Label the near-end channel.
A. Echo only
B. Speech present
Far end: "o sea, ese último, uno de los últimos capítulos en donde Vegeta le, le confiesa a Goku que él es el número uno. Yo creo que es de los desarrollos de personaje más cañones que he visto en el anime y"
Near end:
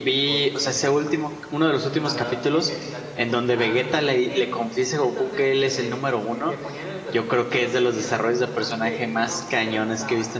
B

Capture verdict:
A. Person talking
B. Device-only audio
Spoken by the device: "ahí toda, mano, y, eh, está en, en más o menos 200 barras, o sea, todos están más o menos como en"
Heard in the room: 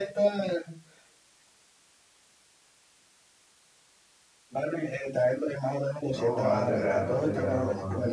A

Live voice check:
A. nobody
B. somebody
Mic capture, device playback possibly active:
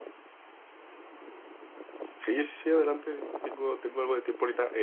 B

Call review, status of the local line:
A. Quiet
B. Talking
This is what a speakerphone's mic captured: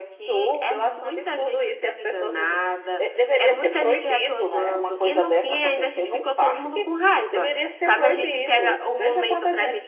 A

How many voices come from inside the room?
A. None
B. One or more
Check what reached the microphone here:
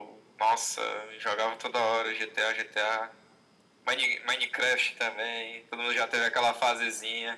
A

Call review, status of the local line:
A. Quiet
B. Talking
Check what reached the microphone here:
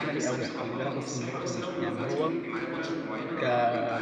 B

